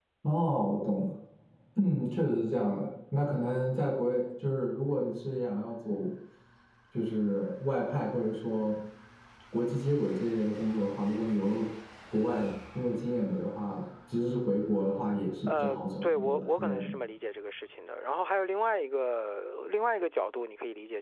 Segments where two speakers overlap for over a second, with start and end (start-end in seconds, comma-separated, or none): 15.5-16.9